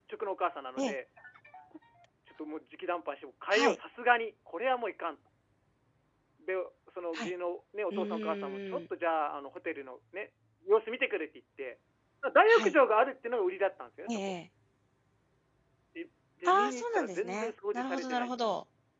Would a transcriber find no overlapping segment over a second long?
No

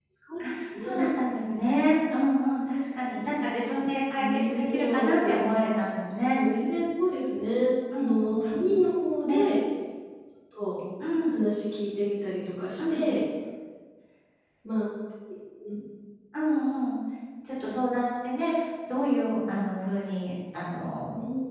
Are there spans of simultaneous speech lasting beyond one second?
Yes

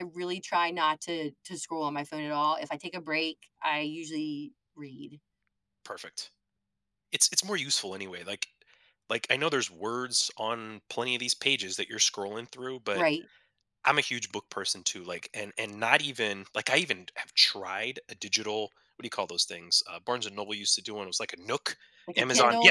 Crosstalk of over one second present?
No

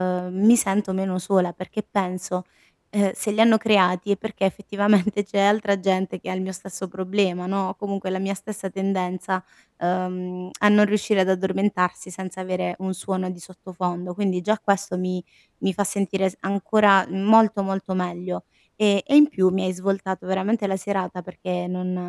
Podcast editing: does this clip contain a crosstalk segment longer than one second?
No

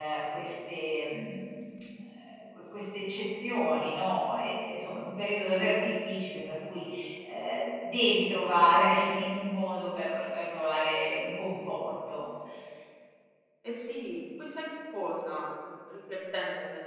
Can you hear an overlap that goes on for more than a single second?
No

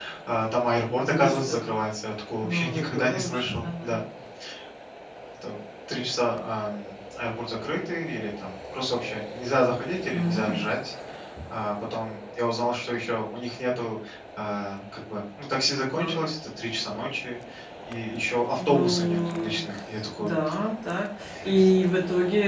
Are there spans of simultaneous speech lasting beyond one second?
Yes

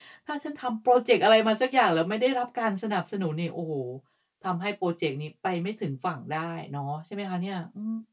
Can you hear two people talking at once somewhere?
No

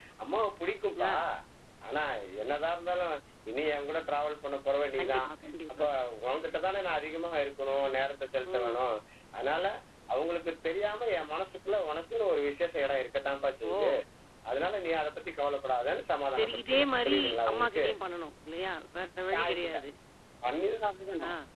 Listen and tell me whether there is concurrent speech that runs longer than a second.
Yes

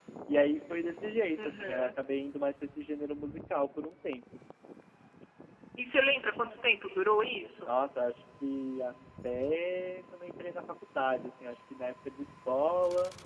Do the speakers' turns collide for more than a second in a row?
No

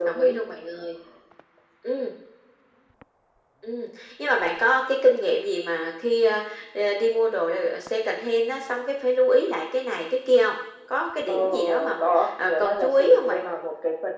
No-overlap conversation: No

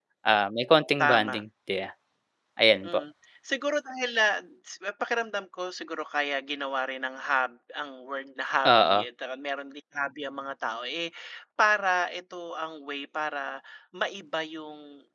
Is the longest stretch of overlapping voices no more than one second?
Yes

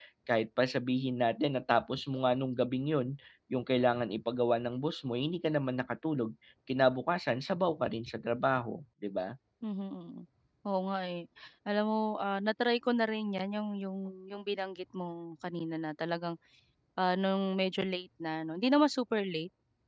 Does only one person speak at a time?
Yes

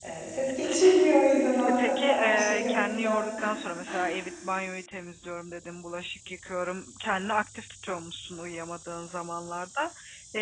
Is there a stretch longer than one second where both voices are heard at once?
Yes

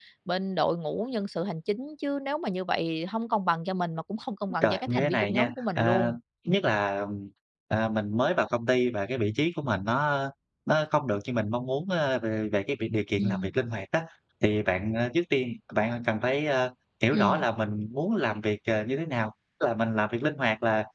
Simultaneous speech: Yes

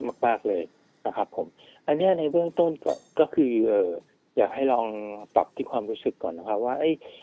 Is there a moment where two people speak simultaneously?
No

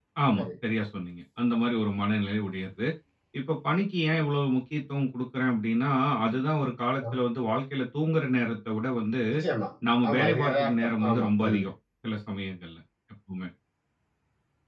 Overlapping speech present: Yes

